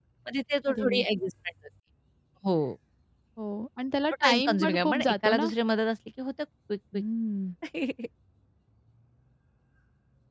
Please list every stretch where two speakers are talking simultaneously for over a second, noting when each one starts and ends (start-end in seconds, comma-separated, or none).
4.1-5.5